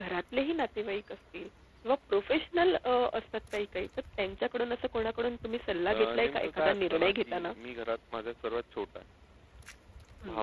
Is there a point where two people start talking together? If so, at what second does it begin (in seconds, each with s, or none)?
5.9 s